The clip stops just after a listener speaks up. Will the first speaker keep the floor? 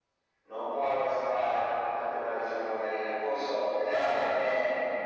Yes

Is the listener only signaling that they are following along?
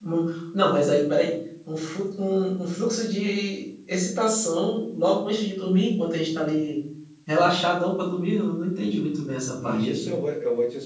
No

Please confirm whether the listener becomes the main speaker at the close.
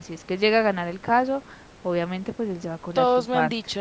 Yes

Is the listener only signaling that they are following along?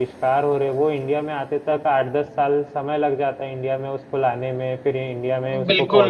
No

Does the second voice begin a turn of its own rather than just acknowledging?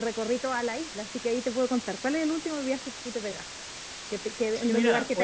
Yes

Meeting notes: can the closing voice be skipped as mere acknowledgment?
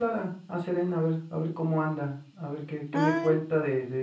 Yes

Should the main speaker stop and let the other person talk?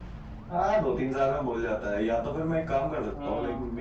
No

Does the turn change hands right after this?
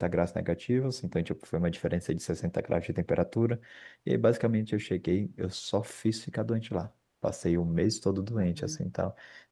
No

